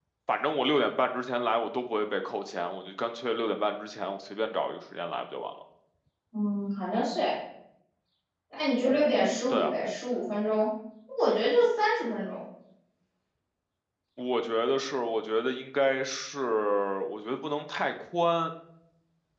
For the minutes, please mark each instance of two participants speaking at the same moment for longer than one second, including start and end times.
none

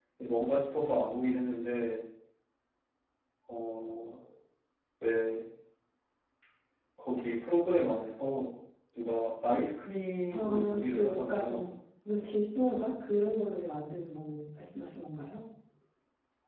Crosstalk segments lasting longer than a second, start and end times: 10.3-11.7

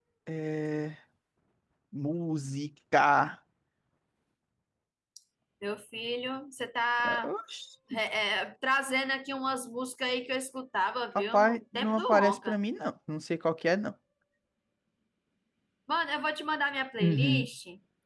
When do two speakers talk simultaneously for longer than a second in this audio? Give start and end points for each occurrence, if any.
11.2-12.6

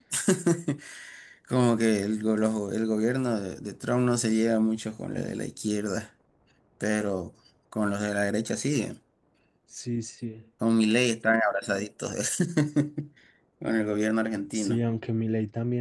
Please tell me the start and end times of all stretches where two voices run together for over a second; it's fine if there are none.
none

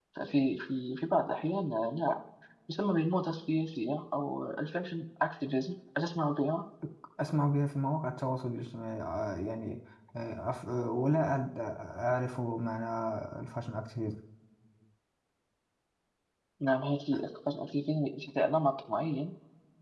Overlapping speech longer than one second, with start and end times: none

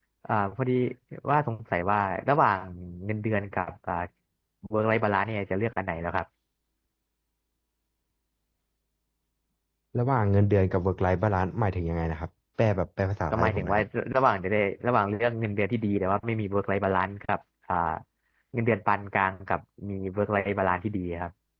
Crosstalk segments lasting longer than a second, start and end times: none

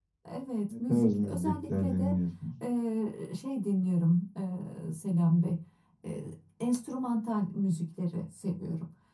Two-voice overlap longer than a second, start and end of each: 0.7-2.1

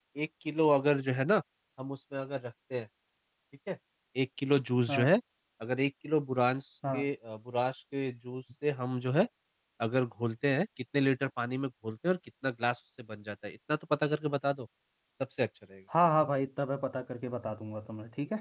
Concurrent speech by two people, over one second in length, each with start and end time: none

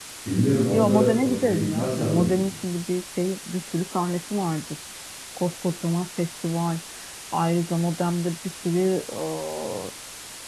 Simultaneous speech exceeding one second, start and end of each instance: 0.7-2.4

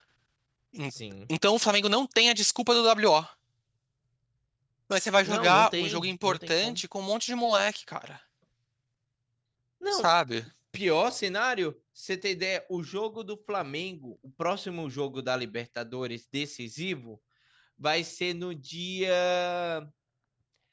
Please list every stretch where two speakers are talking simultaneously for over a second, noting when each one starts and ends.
5.2-6.8

